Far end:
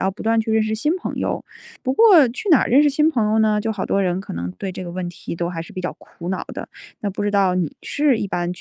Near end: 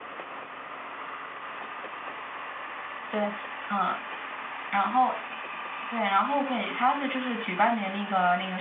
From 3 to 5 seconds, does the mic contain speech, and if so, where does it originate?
user only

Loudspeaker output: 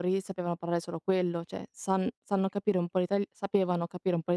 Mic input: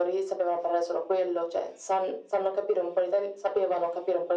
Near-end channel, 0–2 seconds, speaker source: echo only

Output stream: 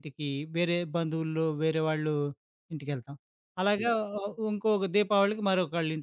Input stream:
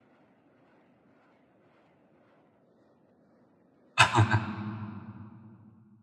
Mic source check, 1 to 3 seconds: neither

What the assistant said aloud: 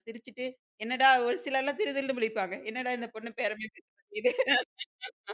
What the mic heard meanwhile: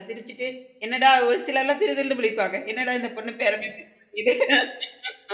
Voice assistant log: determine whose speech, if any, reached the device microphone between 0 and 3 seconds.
echo only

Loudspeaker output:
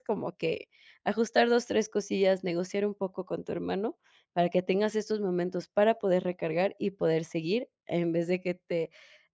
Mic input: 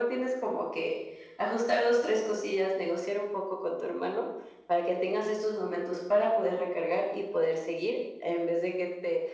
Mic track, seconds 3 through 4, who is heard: echo only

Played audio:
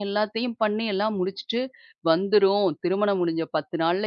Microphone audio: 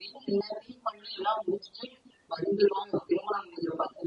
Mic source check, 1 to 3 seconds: echo only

